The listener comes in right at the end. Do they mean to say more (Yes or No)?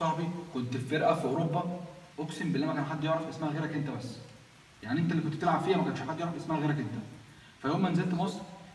No